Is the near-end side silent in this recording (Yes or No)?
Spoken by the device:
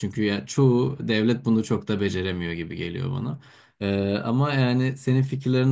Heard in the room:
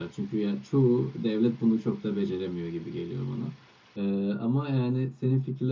Yes